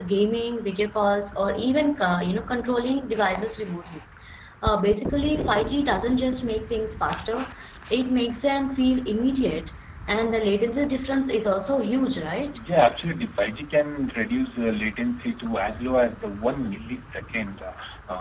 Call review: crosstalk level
none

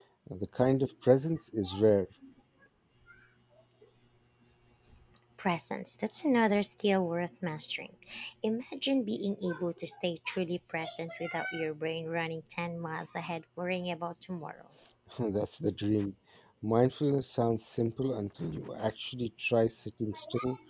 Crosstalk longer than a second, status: none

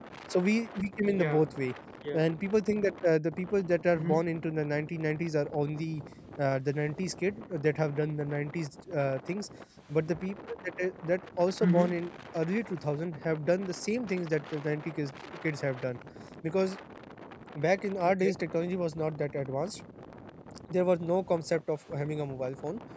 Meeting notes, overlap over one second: none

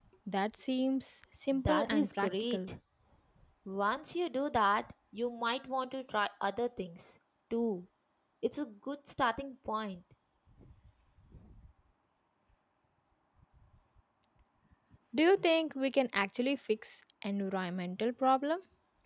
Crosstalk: present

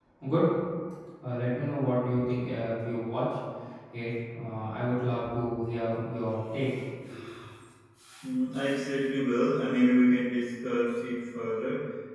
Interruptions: none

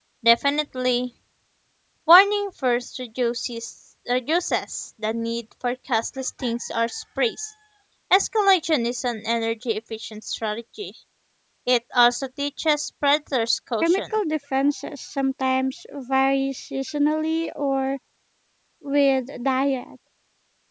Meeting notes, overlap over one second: none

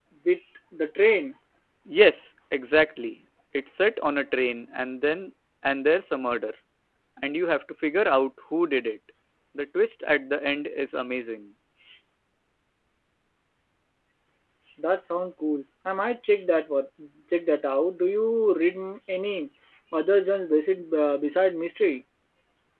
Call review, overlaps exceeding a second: none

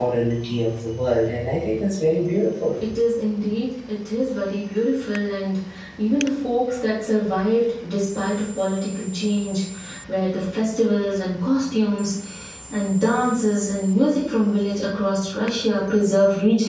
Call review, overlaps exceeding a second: none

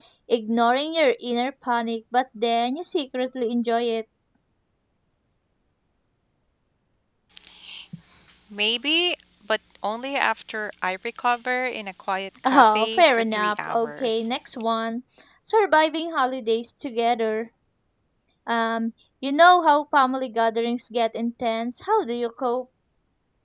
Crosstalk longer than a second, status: present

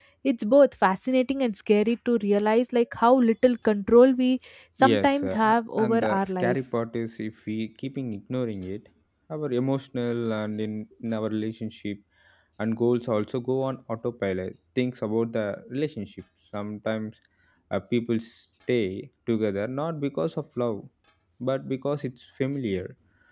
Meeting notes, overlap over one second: present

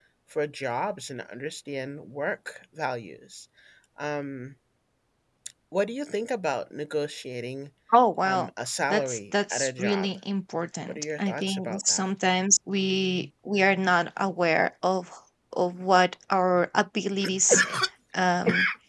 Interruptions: present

